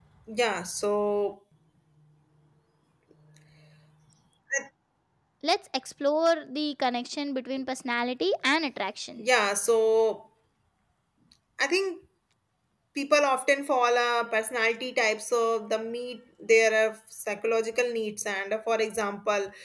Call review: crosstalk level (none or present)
none